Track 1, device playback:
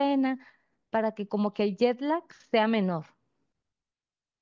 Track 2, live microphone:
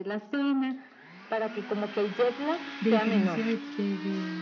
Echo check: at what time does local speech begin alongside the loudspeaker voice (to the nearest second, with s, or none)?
3 s